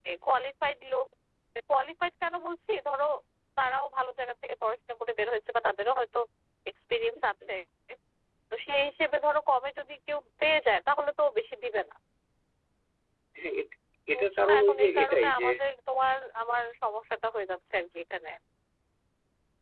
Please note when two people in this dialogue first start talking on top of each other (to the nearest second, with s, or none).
14 s